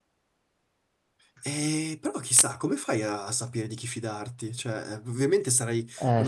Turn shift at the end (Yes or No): No